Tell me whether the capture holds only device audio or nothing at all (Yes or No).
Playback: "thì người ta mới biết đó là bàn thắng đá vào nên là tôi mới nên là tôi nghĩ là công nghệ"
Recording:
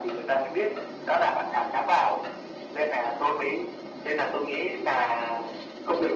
Yes